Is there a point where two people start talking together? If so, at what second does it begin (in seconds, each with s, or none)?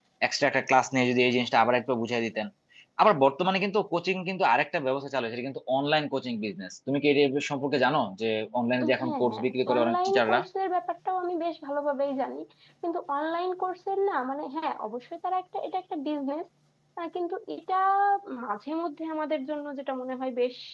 8.8 s